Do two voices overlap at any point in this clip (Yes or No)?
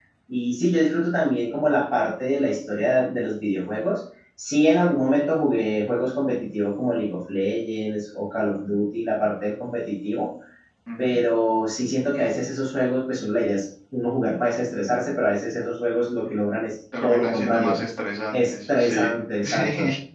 Yes